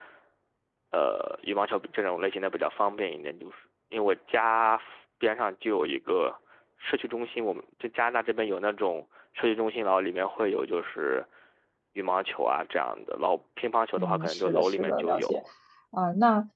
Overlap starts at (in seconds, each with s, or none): 14.0 s